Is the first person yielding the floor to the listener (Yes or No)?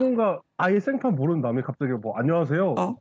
No